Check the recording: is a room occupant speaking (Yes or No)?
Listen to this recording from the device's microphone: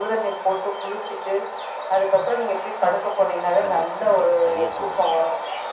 Yes